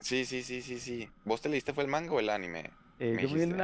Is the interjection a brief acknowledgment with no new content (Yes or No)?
No